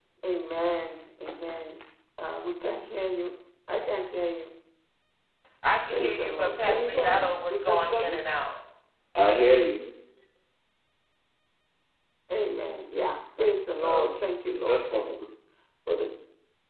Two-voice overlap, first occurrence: 5.9 s

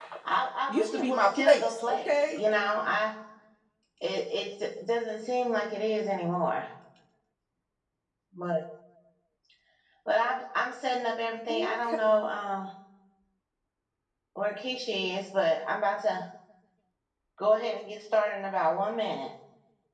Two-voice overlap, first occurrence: 0.7 s

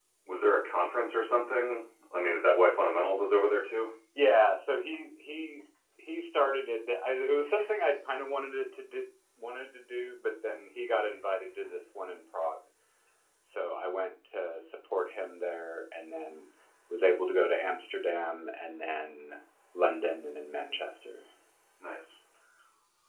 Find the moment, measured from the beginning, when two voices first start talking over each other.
none

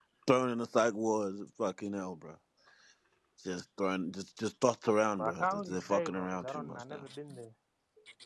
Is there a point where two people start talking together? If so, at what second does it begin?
5.2 s

